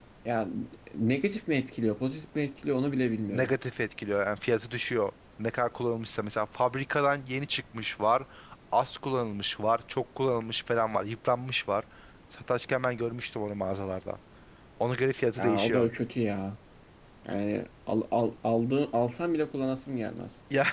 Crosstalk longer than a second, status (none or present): none